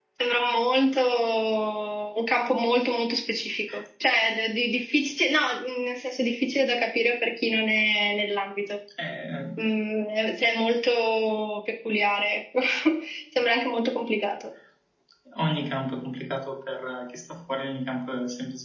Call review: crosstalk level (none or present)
none